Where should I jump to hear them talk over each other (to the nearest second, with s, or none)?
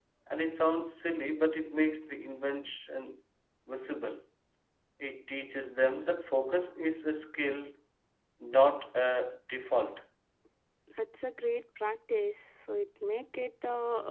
none